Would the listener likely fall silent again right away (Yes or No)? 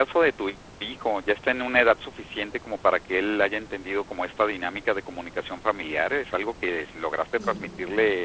Yes